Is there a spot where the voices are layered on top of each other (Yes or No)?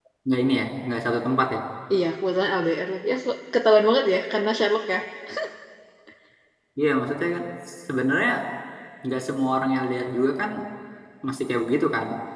No